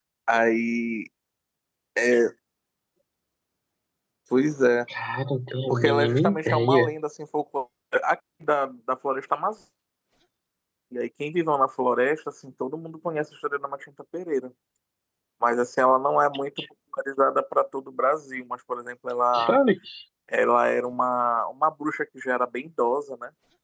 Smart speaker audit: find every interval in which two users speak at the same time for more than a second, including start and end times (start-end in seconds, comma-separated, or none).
5.7-6.9